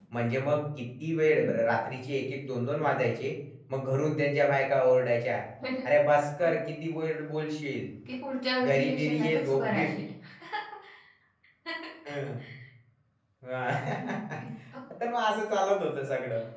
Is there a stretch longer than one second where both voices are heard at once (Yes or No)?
Yes